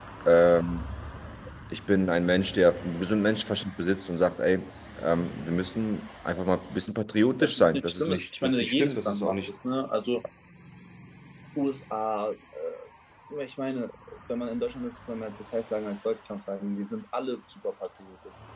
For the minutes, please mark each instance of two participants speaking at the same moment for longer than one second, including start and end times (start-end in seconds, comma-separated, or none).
7.4-9.5